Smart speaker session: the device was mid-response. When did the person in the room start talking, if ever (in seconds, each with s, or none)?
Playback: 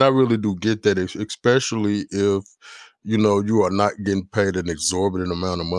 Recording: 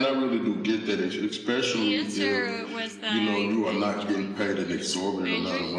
1.7 s